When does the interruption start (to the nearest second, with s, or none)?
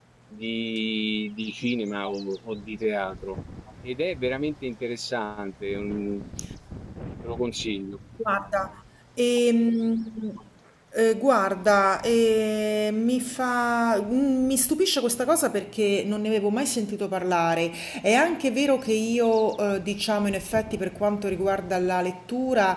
none